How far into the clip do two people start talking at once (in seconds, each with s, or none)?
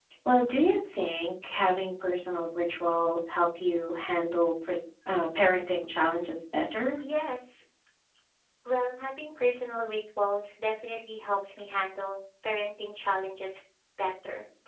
none